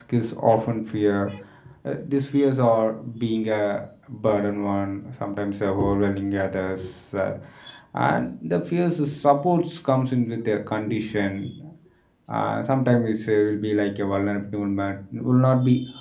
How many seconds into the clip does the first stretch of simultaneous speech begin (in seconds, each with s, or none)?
none